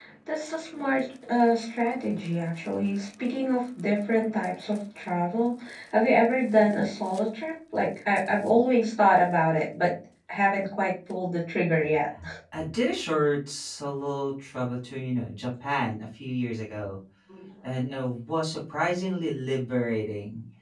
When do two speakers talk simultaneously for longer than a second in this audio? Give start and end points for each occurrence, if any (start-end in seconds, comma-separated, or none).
none